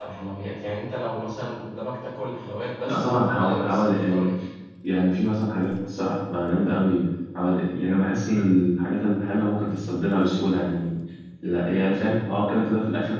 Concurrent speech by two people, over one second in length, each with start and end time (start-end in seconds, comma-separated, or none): 2.9-4.3